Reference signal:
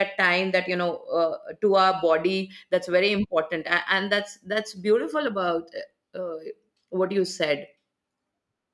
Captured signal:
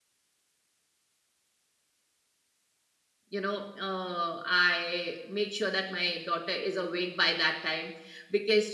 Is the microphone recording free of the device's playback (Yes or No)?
Yes